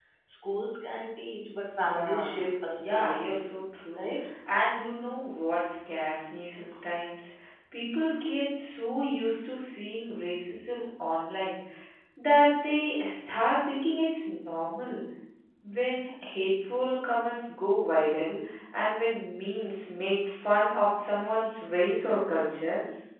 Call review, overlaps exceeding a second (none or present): present